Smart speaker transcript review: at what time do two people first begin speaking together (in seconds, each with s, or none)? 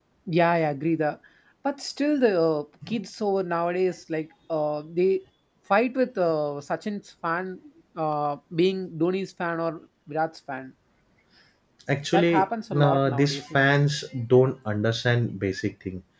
12.1 s